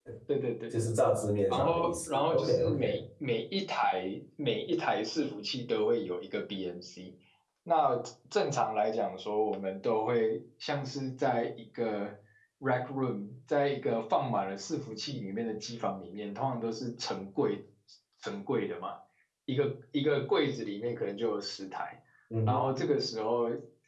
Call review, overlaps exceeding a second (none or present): present